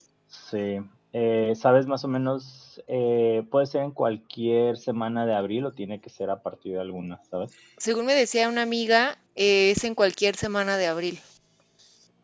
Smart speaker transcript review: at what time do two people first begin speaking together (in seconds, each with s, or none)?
none